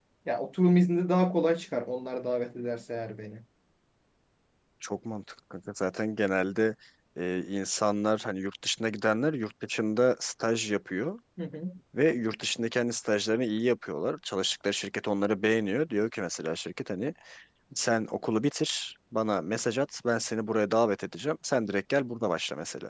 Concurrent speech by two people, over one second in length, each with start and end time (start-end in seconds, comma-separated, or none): none